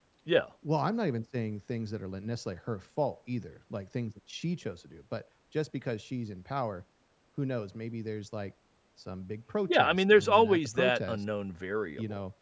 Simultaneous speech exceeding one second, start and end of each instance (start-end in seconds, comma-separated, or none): 9.7-11.2